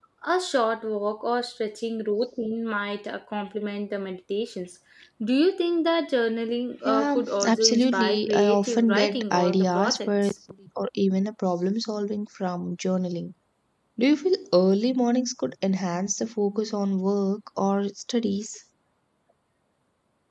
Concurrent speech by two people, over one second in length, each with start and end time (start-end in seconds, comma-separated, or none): 6.8-10.3